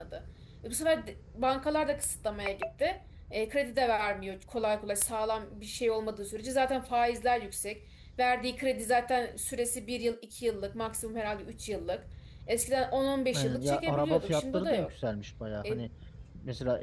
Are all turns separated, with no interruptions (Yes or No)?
No